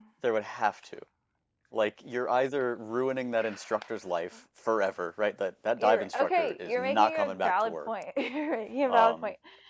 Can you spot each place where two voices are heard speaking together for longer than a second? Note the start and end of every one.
5.8-7.9

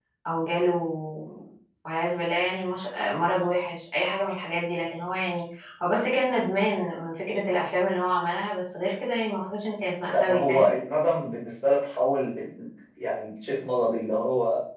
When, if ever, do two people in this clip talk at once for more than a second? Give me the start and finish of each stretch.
none

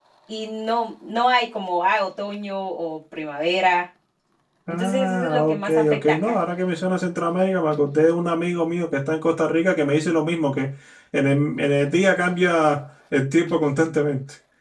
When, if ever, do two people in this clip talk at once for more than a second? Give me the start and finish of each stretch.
4.7-6.4

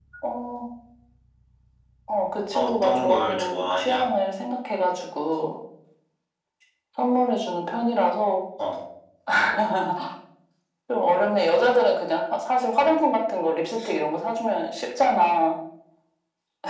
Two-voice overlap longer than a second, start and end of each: 2.5-4.1

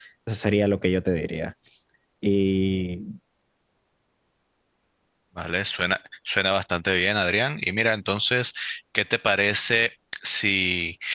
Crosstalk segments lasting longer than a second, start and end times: none

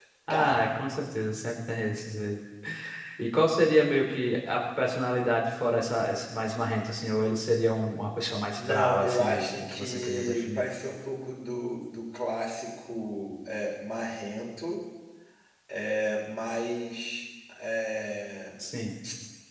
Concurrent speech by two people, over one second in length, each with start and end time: 8.6-10.7

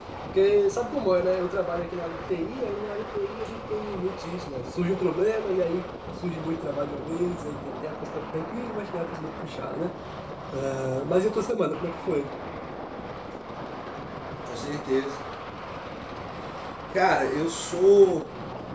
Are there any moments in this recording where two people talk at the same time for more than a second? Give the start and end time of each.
none

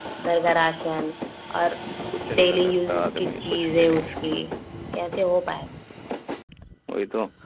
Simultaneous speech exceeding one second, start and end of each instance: 2.4-3.9

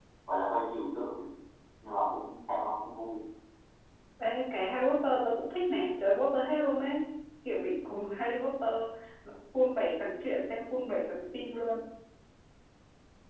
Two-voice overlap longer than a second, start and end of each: none

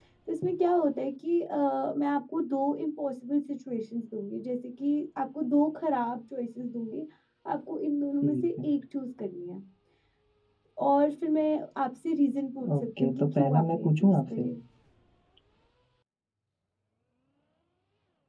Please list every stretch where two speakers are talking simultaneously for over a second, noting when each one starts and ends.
12.8-14.5

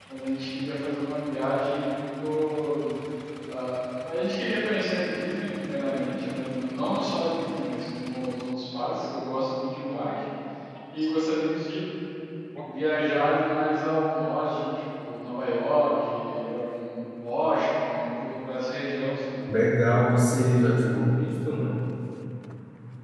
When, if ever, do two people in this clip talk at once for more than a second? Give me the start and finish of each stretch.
none

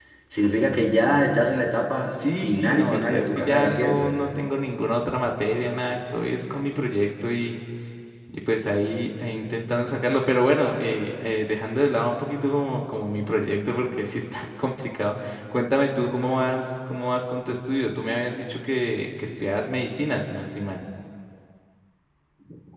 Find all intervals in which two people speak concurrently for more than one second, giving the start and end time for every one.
2.4-4.1

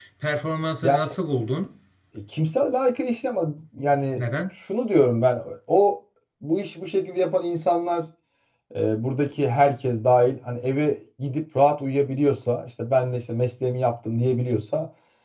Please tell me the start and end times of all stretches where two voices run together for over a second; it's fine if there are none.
none

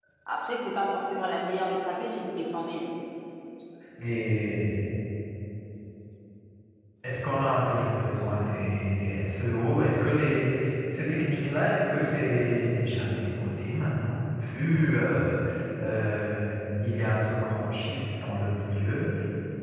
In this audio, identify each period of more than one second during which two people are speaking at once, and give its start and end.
none

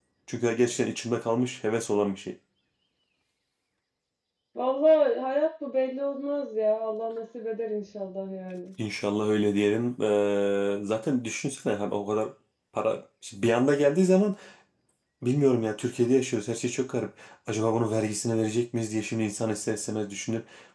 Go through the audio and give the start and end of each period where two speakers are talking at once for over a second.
none

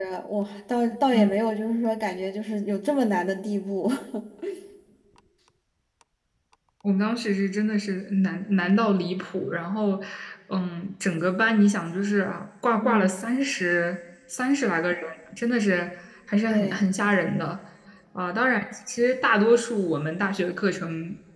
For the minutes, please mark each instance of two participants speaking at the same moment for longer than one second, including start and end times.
none

